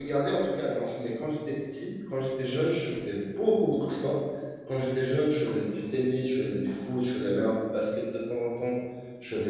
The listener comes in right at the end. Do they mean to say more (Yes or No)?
No